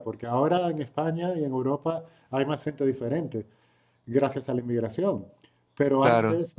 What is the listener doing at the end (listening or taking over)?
listening